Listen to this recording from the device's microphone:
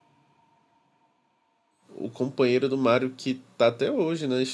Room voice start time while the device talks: 1.9 s

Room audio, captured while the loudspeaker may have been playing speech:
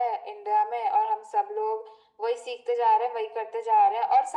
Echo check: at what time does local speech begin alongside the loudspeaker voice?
none

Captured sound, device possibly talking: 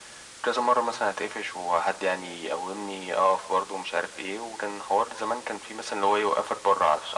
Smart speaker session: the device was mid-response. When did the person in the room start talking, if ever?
none

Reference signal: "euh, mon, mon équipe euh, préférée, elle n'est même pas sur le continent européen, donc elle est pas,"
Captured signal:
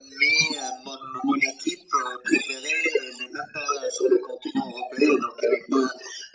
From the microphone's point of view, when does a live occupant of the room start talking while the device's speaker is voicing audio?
none

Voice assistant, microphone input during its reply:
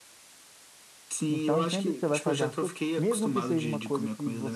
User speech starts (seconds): 1.3 s

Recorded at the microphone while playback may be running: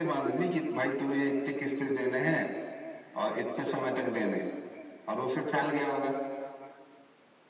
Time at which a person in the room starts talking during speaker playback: none

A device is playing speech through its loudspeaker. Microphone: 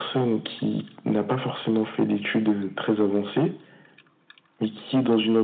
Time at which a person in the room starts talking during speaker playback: none

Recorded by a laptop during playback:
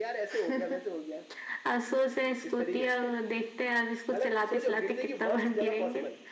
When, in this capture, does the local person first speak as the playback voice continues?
none

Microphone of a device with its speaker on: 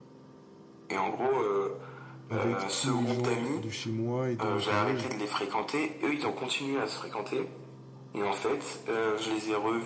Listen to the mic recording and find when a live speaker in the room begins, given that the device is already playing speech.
2.3 s

